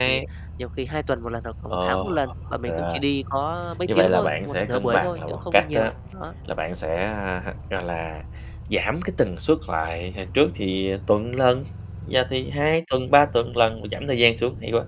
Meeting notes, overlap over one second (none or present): present